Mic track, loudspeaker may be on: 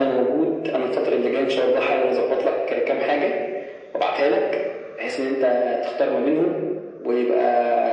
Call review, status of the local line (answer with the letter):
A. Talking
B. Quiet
B